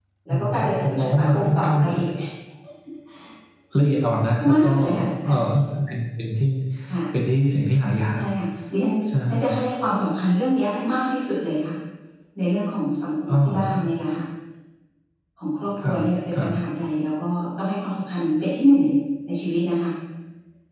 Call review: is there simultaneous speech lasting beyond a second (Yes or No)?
Yes